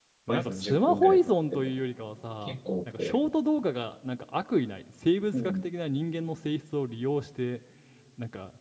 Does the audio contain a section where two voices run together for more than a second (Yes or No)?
Yes